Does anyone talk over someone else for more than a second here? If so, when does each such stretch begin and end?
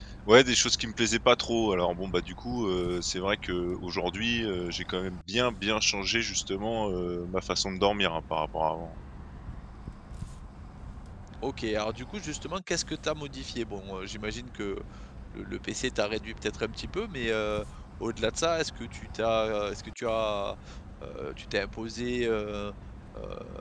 none

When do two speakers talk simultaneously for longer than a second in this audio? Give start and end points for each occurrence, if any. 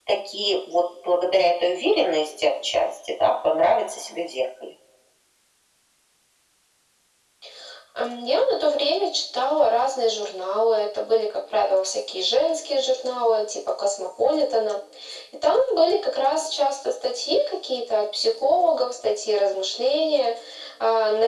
none

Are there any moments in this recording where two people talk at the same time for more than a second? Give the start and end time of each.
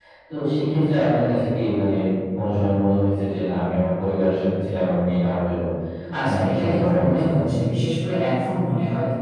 6.2-7.5

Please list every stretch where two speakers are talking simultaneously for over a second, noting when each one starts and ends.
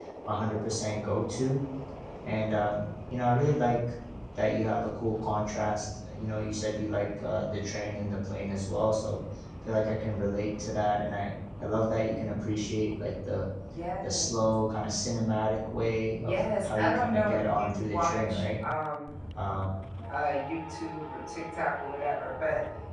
16.2-18.4

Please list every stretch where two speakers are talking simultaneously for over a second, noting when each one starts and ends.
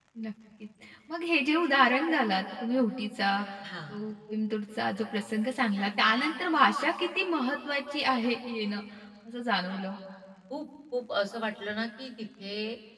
none

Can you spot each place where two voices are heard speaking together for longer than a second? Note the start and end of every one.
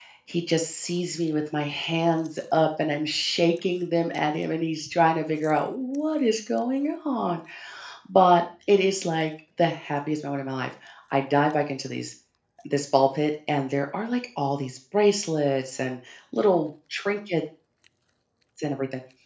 none

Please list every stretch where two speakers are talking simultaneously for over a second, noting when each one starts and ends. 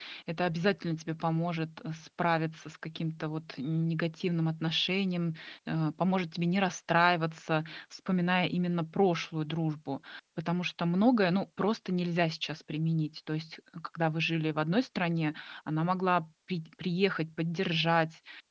none

